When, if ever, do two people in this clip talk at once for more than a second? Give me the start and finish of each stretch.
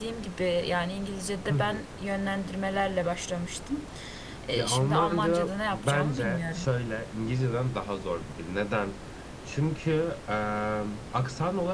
4.5-6.7

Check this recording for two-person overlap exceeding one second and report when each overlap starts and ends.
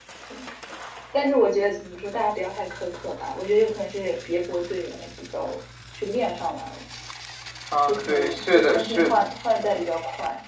7.9-9.2

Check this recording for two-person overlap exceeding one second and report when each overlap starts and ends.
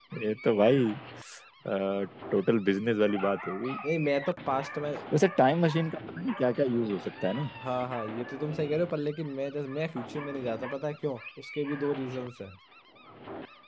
none

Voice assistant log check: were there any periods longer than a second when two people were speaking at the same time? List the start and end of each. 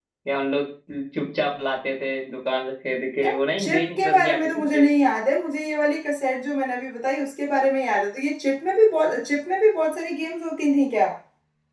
3.2-4.9

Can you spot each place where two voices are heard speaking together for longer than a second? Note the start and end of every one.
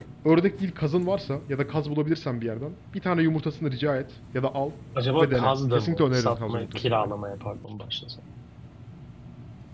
5.2-7.1

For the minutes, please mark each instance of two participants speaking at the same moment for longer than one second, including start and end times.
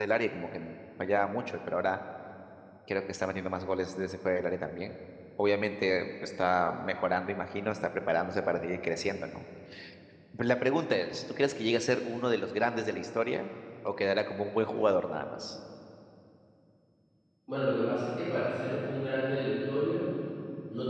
none

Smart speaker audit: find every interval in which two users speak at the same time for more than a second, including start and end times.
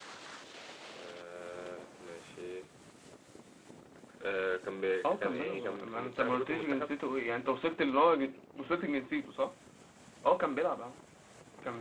5.0-6.9

